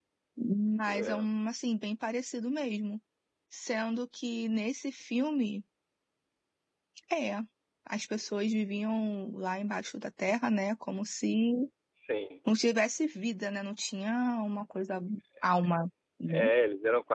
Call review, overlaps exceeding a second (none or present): none